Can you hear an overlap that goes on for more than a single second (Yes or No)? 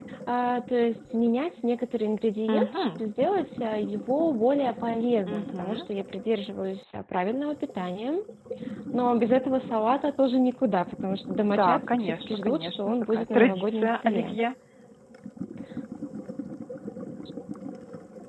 Yes